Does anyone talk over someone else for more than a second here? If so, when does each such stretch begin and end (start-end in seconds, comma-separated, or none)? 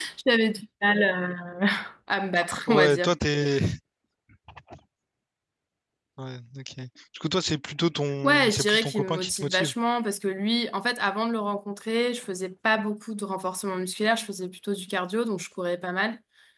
8.2-9.7